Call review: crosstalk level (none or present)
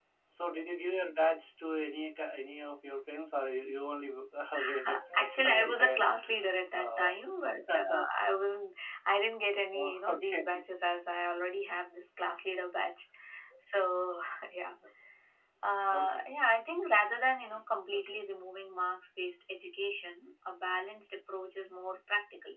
present